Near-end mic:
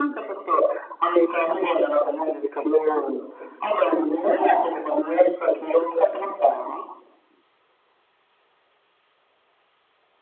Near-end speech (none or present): none